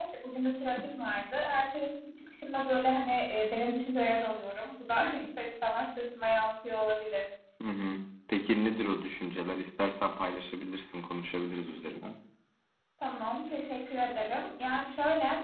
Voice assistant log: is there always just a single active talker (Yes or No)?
Yes